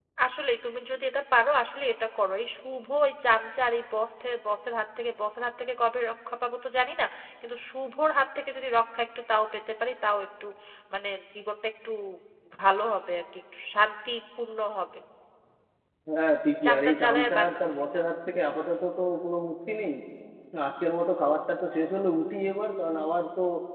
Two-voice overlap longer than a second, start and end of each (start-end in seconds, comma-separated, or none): 16.6-18.0